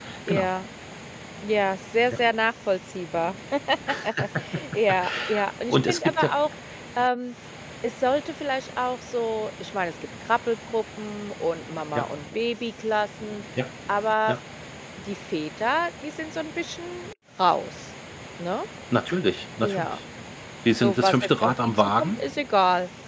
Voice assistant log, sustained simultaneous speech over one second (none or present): present